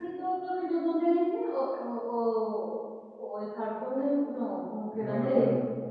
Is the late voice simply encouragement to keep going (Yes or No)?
No